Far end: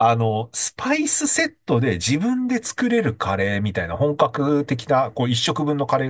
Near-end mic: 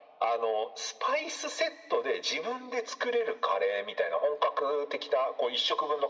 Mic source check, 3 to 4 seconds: echo only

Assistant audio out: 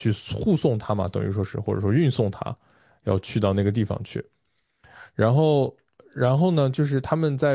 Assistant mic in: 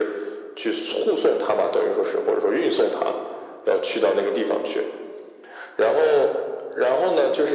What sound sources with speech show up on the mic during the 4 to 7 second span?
echo only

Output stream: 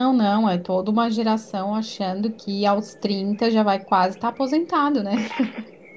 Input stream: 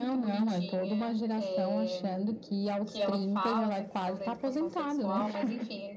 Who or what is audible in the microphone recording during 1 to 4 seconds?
both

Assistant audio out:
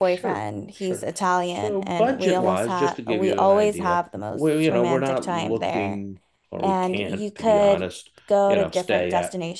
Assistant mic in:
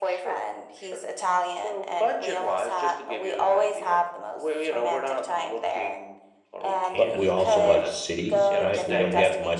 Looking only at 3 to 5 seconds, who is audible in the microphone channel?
echo only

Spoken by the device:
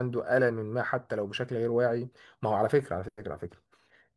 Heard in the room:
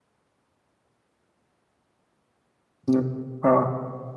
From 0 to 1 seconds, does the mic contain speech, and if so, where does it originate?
neither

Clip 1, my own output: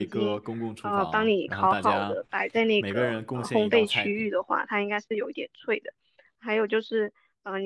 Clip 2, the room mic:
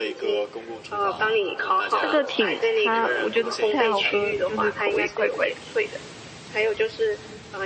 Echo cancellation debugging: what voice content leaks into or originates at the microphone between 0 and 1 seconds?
echo only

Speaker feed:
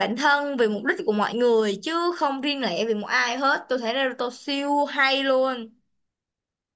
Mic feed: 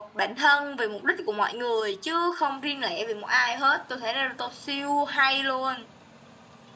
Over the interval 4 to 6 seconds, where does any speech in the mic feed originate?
echo only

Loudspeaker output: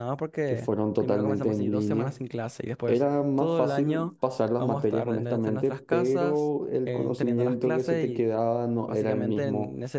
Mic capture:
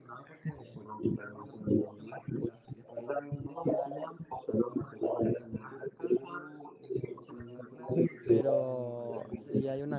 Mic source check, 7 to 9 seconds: both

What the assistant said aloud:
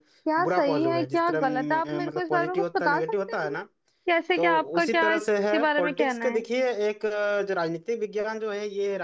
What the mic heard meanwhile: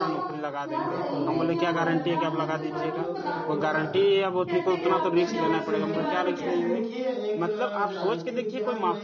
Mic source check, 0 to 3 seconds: both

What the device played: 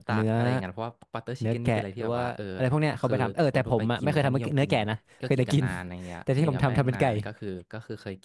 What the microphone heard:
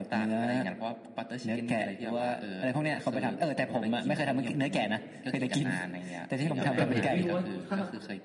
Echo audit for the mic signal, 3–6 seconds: echo only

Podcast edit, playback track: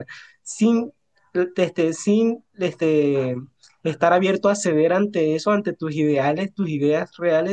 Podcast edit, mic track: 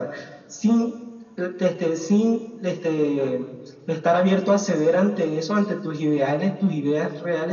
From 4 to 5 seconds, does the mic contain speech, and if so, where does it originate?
echo only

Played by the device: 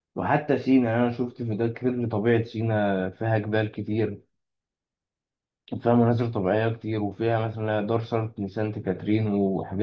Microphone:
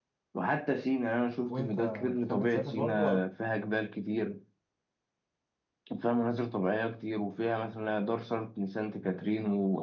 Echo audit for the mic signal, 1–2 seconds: both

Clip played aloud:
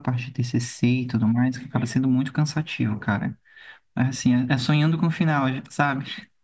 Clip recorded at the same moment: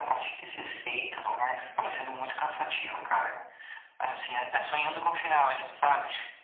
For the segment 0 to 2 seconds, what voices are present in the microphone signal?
echo only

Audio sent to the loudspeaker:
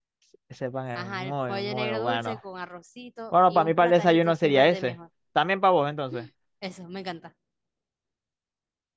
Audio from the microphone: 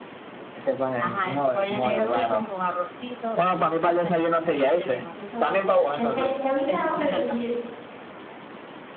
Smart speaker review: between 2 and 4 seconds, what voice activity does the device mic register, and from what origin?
echo only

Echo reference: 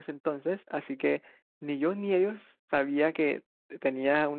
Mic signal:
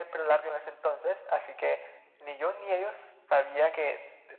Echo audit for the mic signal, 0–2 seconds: echo only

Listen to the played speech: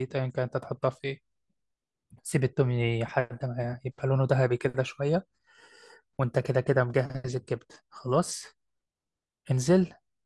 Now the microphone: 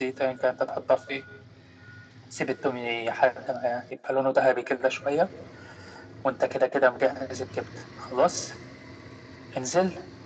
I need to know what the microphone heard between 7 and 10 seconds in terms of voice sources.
echo only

